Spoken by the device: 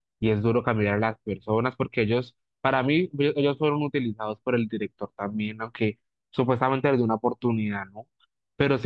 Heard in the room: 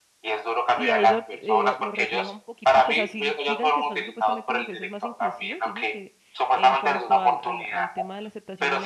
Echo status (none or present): present